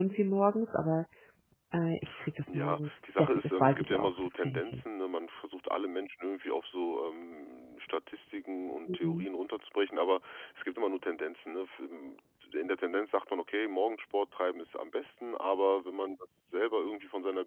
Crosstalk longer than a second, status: present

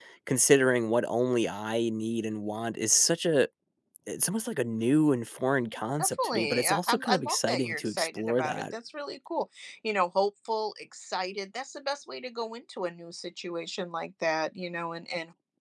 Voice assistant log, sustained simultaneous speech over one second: present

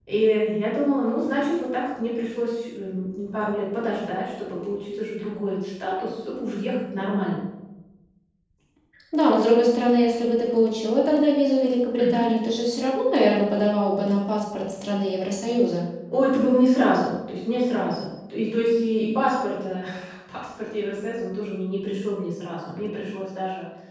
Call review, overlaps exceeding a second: none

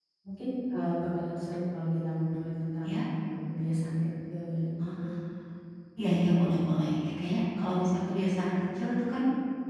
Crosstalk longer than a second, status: none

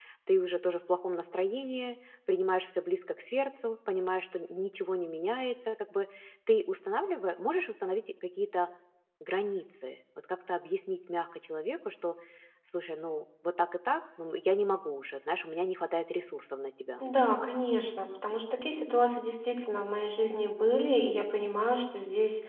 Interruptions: none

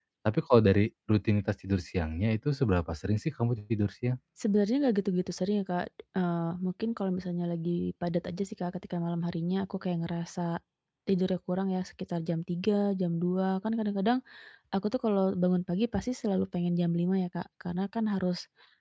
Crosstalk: none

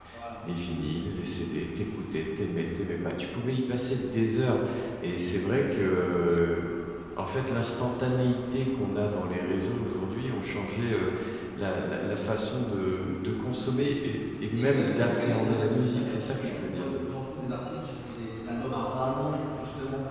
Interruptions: present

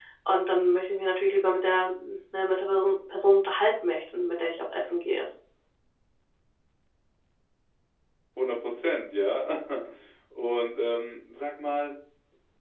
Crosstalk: none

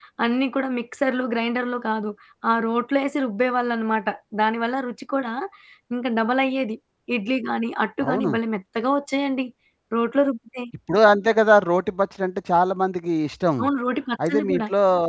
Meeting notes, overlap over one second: none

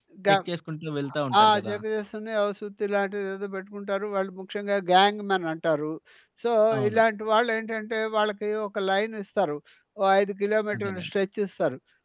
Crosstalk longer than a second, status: none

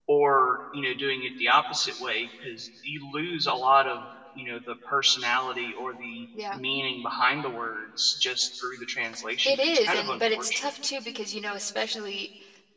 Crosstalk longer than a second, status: present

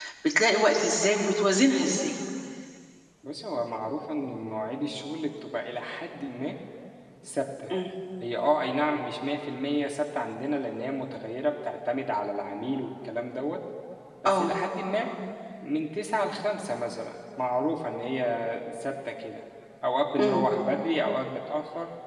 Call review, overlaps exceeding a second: none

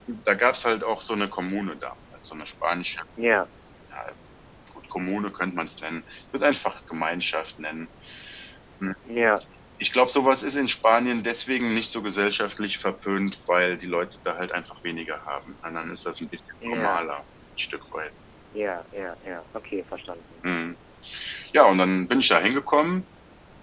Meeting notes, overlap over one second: none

